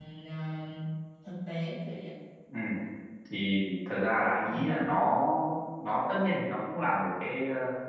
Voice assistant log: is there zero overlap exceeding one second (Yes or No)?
Yes